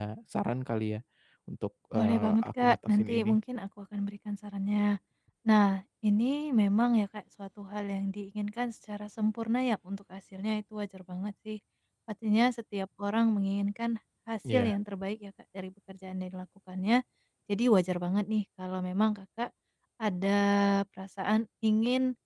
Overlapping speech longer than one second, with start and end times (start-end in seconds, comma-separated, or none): 2.0-3.4